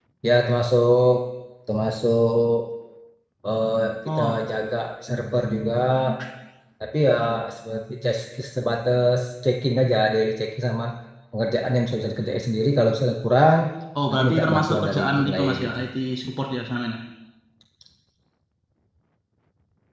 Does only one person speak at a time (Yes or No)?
No